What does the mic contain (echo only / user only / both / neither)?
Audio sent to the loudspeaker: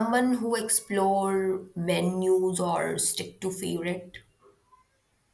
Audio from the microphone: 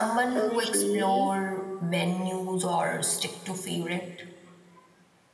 both